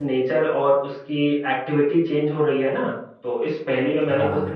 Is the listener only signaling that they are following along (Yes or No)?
Yes